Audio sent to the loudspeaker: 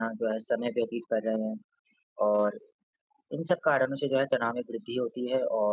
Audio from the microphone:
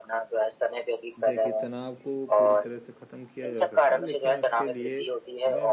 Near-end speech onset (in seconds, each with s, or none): 1.2 s